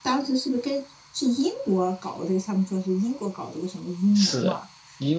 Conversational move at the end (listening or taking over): taking over